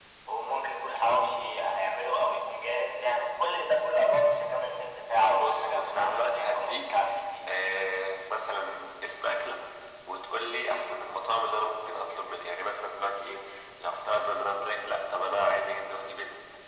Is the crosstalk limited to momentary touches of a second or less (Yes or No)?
No